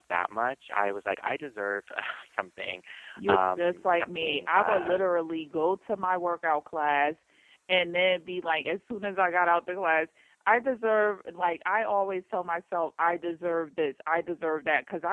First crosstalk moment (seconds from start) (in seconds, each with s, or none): 3.3 s